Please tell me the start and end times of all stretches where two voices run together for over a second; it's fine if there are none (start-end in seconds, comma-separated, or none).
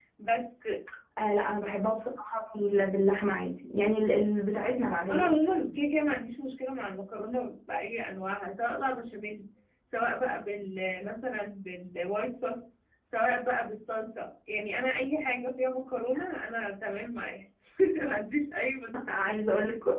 none